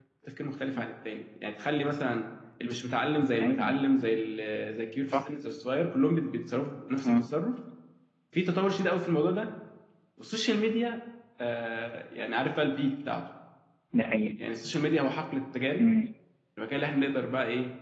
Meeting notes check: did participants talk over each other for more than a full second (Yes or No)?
No